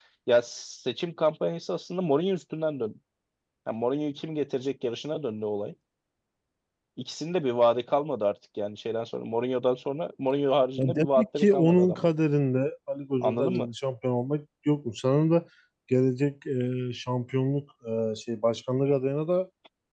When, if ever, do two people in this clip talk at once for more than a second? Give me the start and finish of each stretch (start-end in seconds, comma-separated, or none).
10.8-12.1